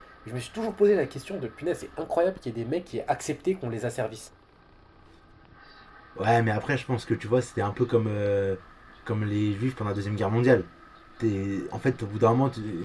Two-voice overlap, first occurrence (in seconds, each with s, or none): none